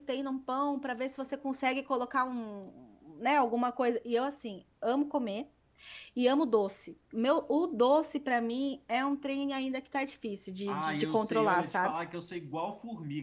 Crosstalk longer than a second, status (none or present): present